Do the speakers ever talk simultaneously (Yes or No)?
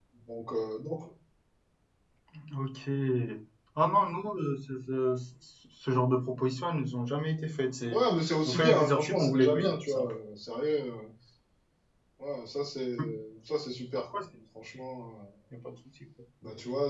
Yes